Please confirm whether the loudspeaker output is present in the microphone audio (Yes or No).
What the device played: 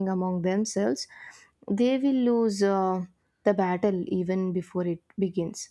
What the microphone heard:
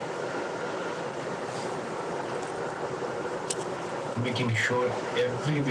No